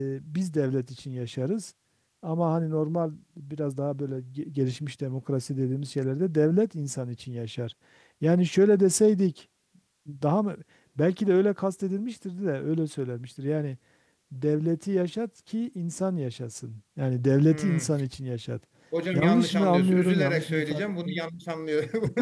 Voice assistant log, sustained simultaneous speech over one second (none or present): present